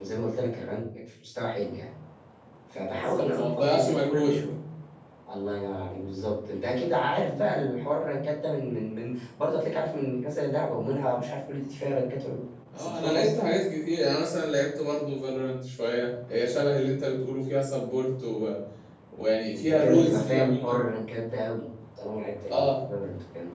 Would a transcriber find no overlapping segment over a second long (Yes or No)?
No